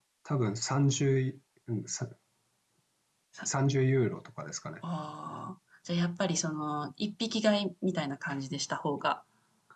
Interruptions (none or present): none